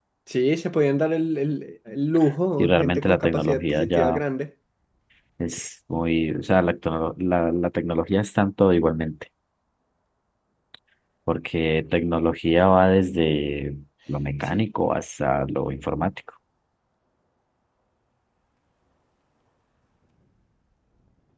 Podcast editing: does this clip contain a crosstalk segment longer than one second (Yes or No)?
Yes